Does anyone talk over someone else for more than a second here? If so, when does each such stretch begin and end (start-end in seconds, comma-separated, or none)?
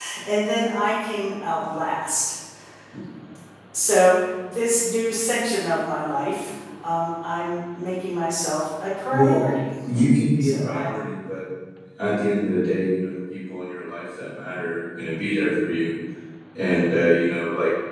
none